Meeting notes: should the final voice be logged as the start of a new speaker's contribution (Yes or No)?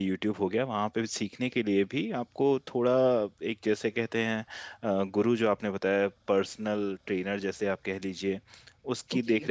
No